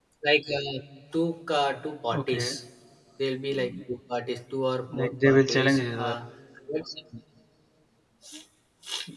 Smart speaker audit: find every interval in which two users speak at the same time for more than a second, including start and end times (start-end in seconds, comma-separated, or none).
5.0-6.2